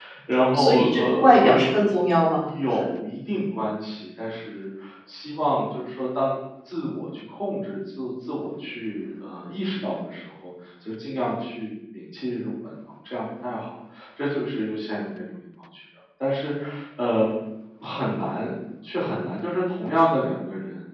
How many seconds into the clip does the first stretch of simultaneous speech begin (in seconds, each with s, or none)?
0.5 s